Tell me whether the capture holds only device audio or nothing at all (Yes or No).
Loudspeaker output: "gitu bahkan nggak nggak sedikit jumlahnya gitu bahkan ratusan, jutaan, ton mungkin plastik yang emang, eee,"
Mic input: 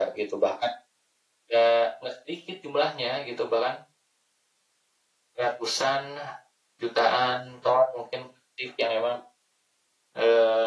Yes